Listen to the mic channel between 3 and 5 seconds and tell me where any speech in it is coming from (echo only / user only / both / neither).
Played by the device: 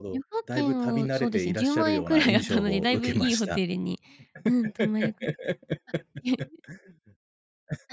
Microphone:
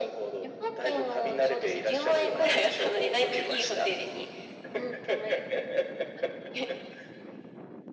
echo only